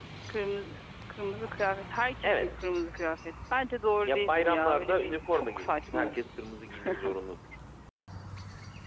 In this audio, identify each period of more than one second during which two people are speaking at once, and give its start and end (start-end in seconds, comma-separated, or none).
4.0-6.2